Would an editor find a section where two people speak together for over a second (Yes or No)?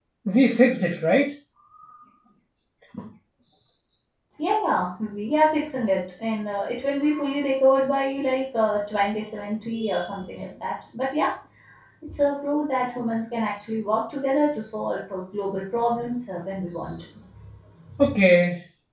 No